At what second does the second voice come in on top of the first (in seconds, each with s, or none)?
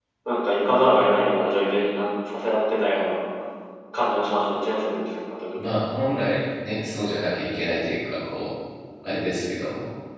none